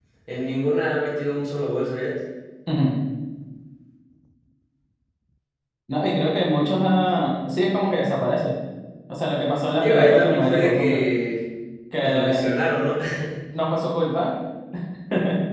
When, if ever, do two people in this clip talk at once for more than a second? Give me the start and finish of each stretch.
9.8-11.0

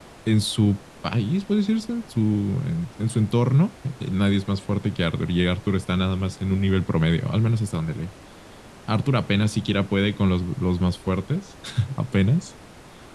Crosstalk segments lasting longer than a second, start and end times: none

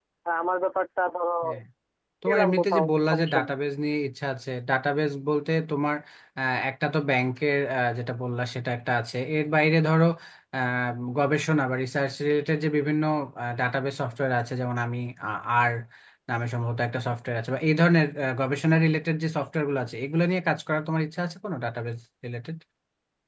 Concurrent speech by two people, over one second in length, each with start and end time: 2.2-3.6

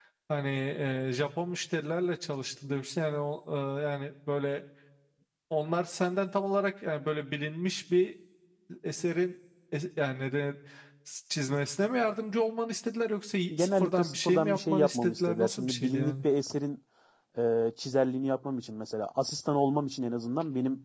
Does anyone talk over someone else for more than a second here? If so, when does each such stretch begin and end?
13.6-16.1

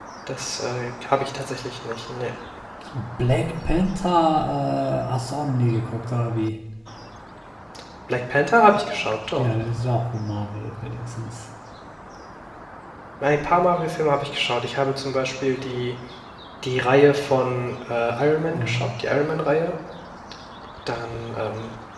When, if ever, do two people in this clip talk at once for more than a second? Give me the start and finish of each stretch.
none

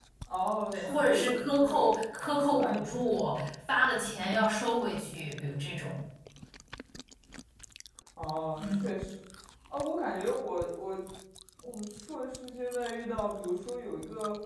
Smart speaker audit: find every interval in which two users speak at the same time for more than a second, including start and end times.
0.7-2.0

